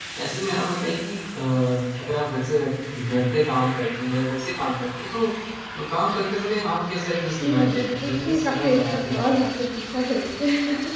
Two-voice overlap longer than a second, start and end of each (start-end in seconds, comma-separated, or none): 7.4-9.2